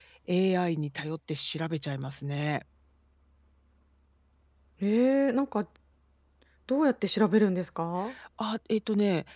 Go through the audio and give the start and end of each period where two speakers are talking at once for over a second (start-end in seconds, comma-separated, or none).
none